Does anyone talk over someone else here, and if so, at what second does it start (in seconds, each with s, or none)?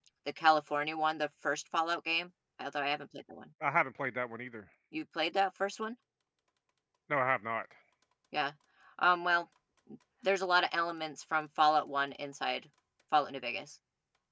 none